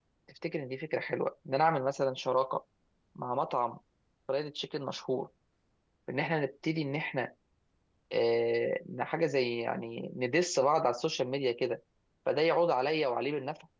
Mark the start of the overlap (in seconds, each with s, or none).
none